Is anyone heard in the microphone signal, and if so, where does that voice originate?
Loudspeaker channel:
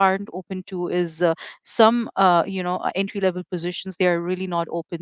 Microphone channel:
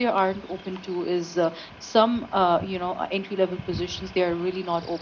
echo only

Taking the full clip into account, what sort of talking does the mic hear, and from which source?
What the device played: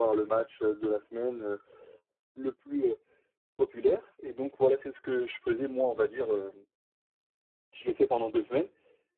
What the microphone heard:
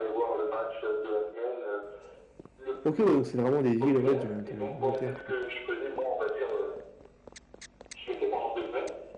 both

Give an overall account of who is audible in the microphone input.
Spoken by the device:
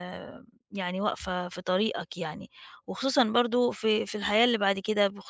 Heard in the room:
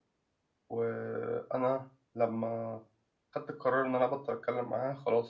user only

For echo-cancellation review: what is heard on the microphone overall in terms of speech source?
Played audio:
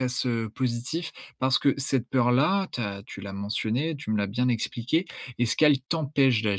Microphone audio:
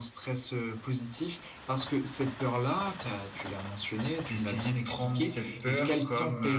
both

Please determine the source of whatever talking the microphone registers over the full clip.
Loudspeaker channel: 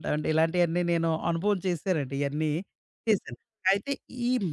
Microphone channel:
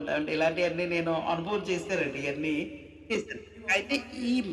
both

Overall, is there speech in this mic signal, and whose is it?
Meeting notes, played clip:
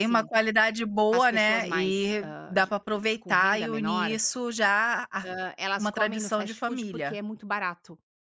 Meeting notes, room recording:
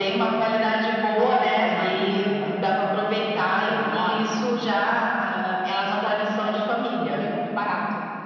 echo only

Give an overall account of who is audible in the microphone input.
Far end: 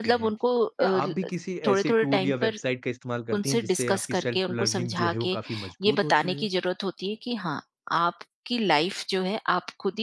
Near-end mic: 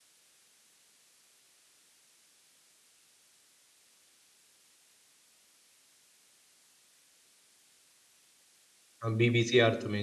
user only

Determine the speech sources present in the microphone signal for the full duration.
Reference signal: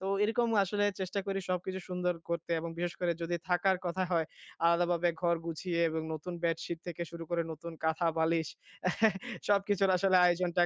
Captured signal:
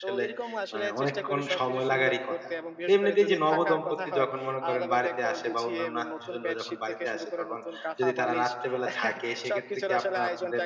both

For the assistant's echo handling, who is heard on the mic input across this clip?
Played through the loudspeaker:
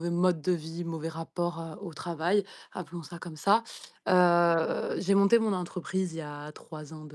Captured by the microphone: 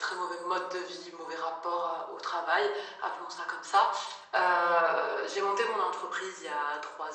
echo only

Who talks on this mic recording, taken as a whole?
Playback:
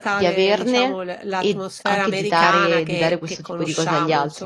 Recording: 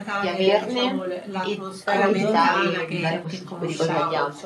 both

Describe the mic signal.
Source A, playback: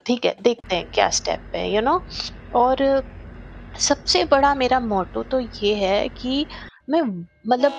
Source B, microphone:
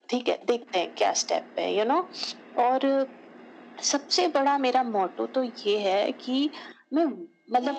echo only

